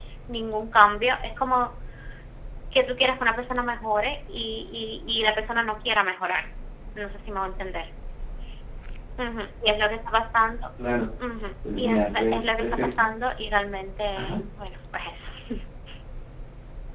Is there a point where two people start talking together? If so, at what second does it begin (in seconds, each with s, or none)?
11.8 s